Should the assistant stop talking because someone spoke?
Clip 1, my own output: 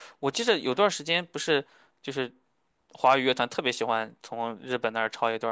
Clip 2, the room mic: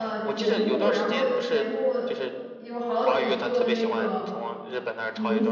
Yes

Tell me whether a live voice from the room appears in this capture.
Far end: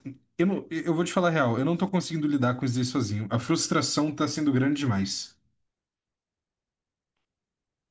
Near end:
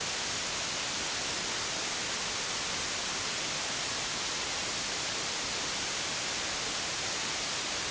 No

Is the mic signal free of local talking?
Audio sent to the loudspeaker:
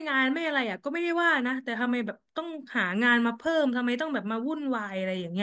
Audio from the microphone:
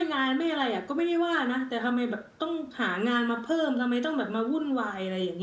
Yes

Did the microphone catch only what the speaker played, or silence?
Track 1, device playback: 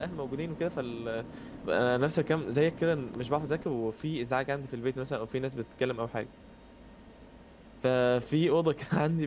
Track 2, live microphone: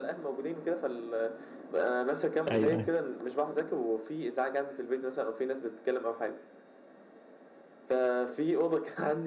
No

